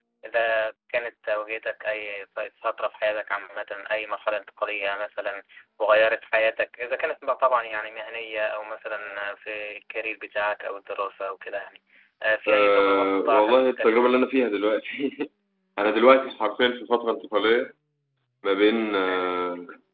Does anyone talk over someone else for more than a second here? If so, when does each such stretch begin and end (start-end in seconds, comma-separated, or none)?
12.5-14.2